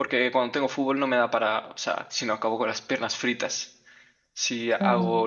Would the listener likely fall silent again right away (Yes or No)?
Yes